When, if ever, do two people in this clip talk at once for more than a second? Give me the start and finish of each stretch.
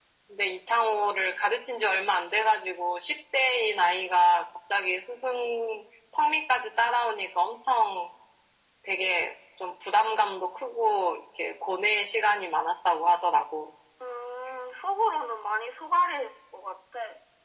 none

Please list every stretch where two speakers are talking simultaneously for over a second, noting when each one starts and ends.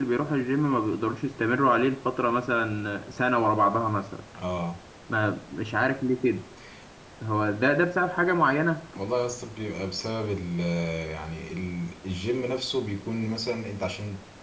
none

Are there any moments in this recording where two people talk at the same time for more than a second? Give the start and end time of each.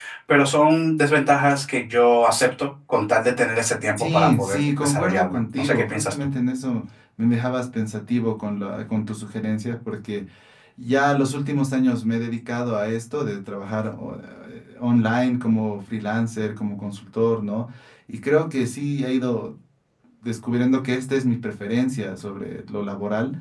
4.0-6.3

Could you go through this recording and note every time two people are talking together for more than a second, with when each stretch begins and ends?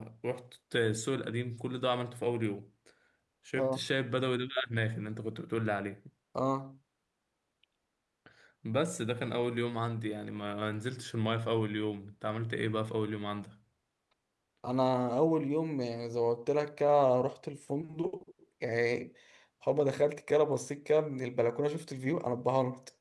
none

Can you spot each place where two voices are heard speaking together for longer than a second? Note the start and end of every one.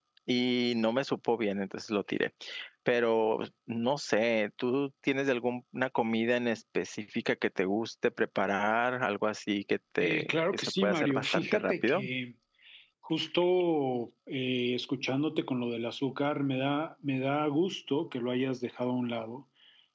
10.0-12.0

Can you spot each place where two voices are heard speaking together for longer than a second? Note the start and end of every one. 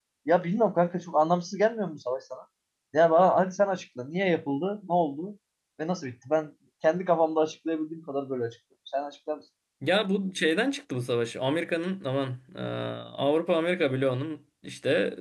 none

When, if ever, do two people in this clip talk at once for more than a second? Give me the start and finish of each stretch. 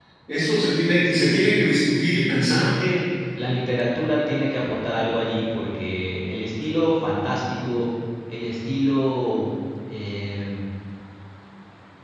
1.0-2.7

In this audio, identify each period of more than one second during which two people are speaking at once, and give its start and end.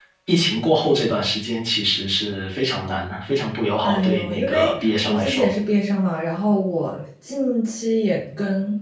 3.8-5.5

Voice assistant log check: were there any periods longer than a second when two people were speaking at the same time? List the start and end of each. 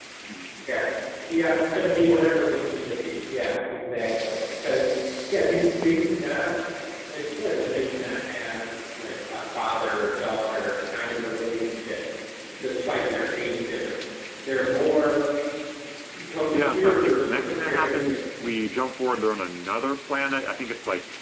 16.5-18.3

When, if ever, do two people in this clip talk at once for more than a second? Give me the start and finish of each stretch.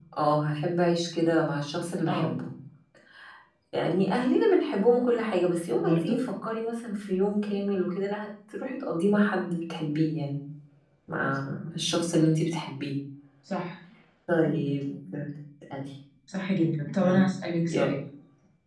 none

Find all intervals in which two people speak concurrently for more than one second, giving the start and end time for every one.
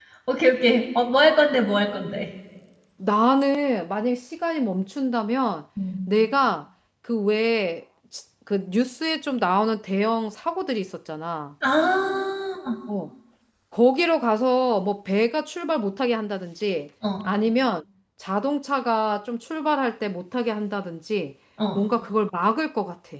none

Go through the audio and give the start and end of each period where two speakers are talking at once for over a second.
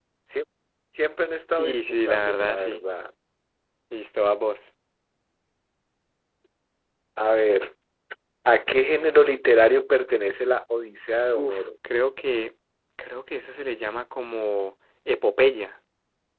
1.6-2.8

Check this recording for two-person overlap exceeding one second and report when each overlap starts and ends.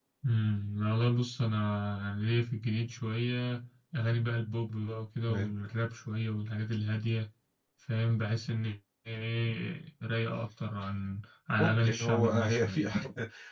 11.6-12.9

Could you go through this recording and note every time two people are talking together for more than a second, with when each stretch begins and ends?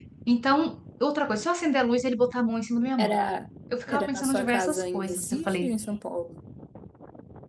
3.9-5.7

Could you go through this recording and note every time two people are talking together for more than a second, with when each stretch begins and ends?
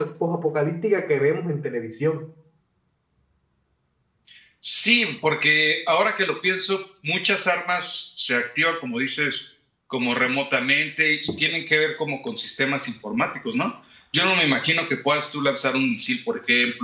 none

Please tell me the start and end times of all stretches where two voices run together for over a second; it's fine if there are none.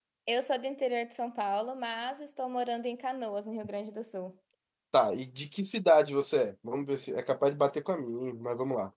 none

